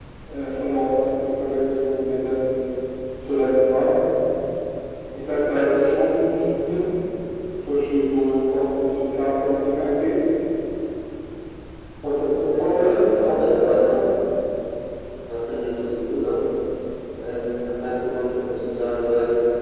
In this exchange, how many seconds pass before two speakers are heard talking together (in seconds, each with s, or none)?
12.5 s